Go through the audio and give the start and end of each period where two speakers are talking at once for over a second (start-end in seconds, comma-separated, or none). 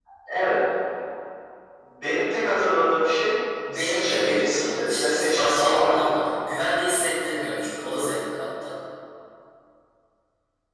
3.7-6.1